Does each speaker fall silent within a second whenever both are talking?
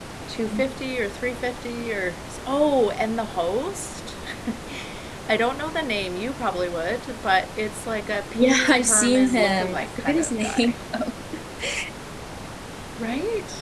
No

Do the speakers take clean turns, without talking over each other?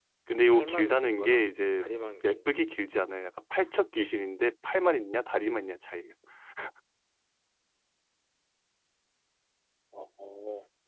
No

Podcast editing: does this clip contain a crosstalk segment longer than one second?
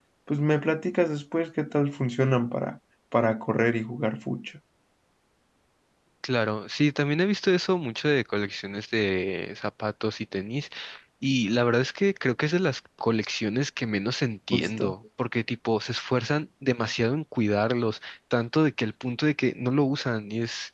No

